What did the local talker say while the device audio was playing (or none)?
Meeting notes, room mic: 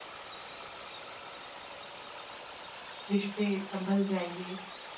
रिश्ते सँभल जाएँगे,